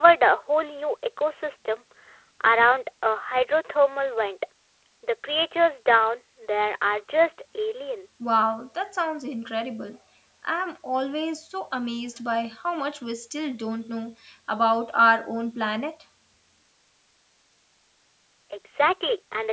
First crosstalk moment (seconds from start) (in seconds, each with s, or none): none